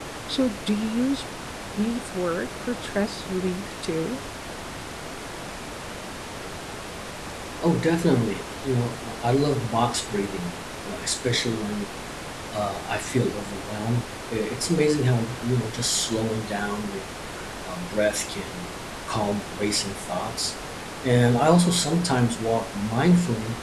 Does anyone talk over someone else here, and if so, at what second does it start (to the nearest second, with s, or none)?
none